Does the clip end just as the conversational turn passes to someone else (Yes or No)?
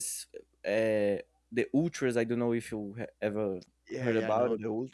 Yes